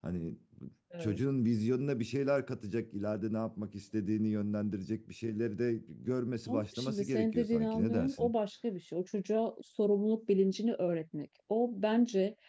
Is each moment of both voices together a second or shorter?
No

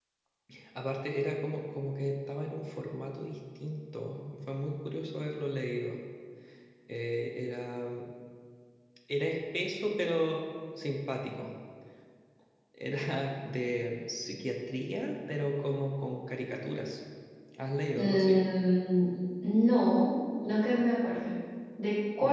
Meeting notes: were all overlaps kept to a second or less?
Yes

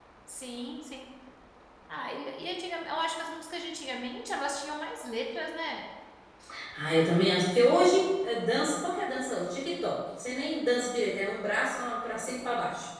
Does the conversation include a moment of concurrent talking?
No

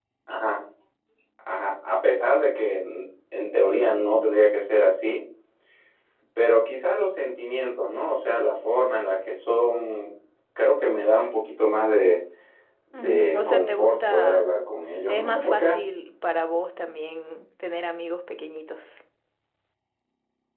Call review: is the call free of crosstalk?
No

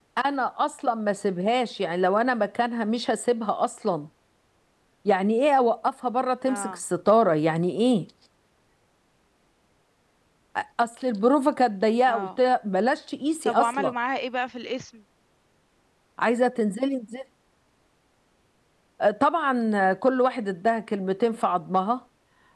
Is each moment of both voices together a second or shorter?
Yes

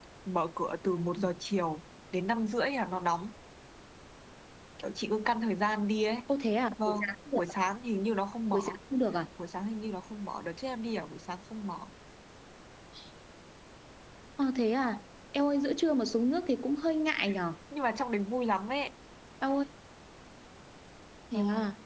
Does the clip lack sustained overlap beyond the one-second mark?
Yes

